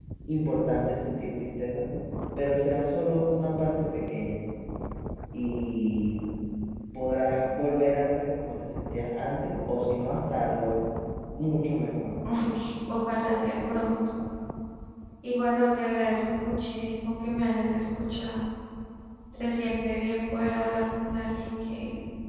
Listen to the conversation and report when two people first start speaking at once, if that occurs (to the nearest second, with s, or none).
none